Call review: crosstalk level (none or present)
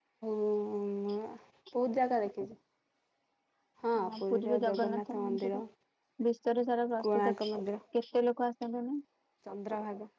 present